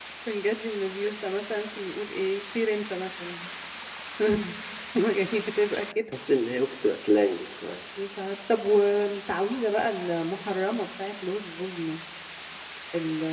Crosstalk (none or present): none